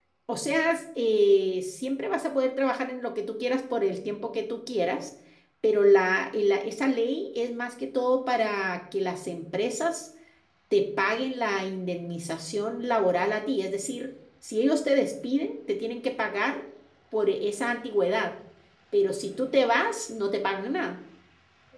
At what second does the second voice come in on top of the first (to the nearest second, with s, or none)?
none